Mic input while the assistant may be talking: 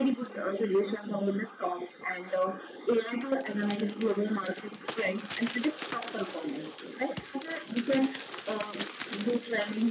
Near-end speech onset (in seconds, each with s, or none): none